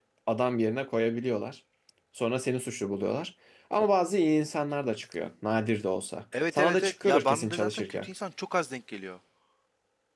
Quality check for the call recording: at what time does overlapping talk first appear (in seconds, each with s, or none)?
6.3 s